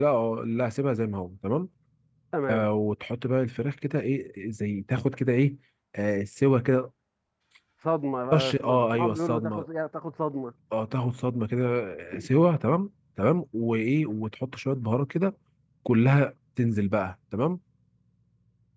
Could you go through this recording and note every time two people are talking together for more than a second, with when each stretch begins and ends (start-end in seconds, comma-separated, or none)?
8.3-9.7